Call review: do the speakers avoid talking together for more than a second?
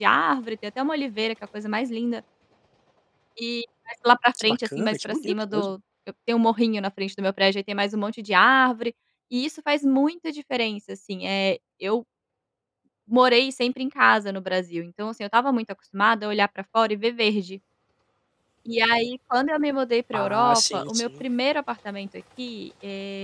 No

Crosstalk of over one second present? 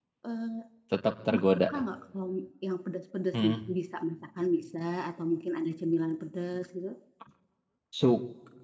No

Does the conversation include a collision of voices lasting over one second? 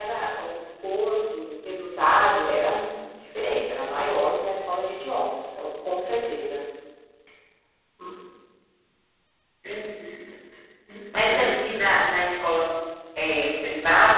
No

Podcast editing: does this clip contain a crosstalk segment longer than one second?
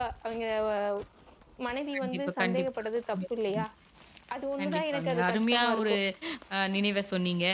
Yes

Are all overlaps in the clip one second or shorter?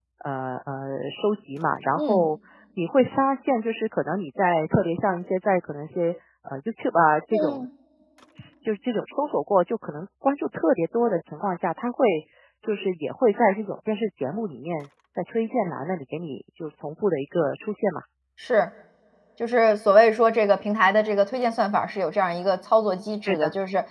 Yes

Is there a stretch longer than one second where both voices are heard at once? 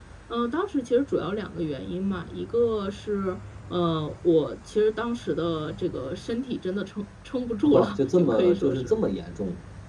Yes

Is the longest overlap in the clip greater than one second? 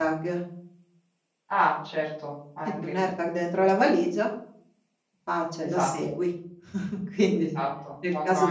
No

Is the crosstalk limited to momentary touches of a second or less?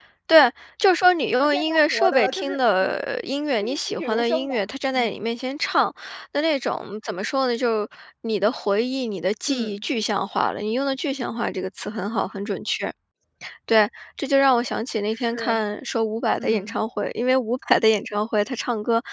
No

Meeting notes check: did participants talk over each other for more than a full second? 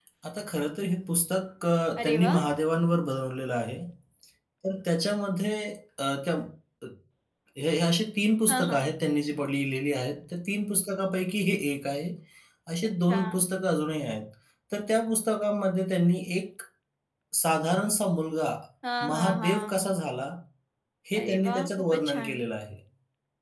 Yes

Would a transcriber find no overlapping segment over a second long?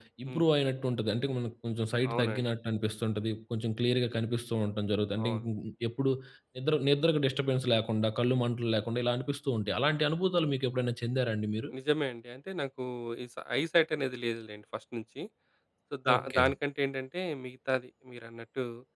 Yes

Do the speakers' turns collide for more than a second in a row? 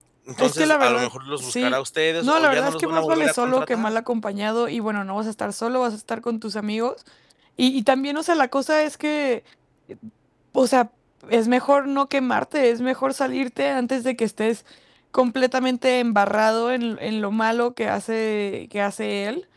Yes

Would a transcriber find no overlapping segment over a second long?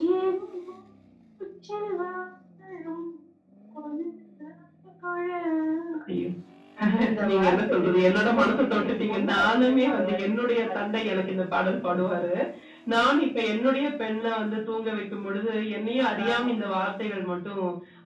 No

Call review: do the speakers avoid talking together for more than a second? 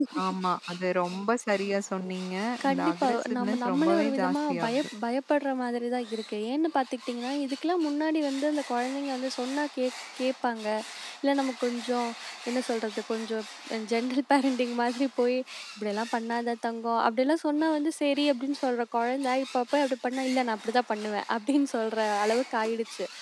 No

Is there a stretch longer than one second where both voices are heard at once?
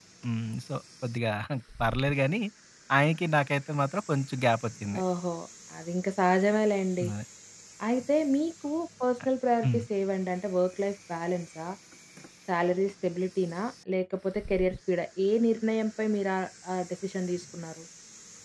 No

